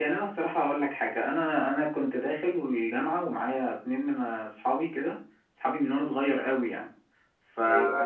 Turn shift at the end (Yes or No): No